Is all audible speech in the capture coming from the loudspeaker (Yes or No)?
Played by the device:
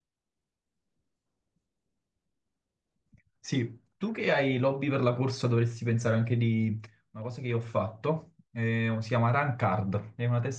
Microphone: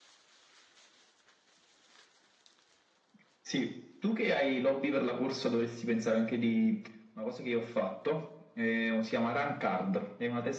Yes